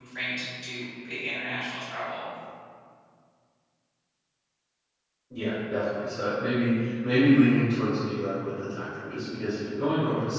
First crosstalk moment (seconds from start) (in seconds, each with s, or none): none